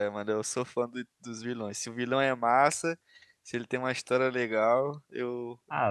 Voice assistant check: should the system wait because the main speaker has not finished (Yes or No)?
No